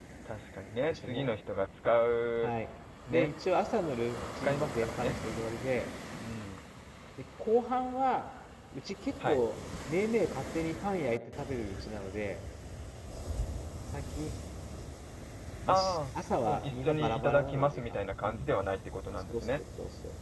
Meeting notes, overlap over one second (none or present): present